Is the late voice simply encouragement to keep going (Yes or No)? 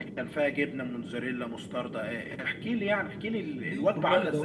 No